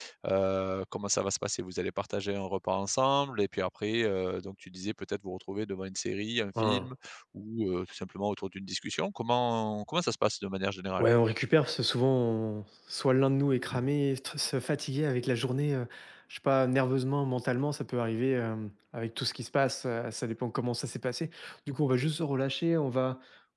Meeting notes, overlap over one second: none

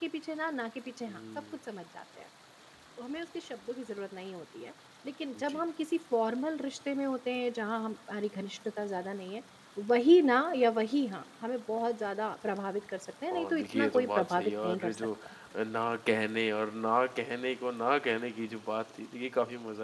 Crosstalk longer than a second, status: present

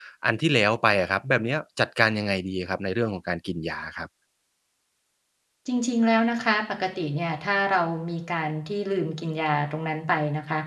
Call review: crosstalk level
none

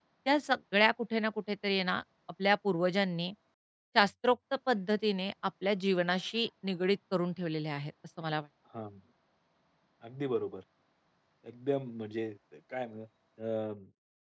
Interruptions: none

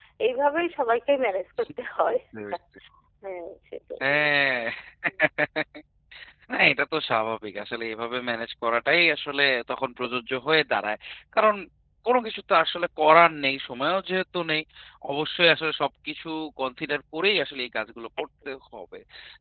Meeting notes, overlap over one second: none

